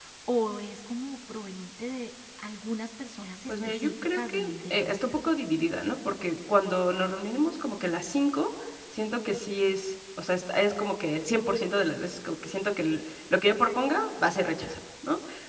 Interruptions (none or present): present